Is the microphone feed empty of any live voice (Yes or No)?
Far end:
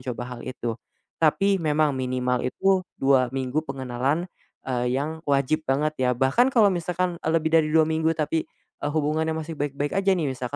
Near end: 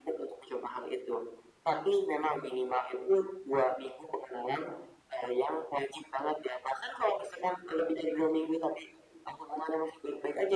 Yes